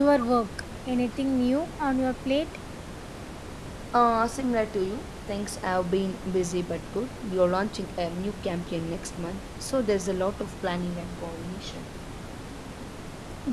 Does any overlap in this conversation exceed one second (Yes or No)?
No